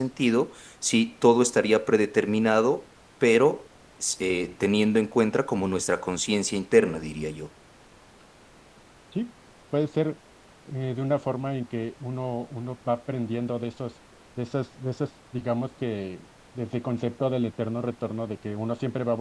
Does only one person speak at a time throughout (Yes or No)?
Yes